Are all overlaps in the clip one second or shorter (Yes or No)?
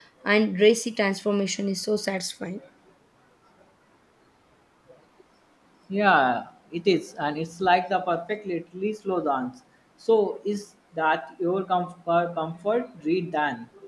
Yes